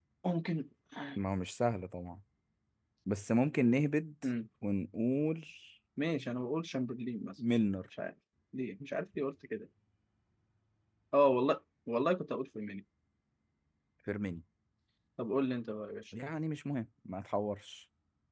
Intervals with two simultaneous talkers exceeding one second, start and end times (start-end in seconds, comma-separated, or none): none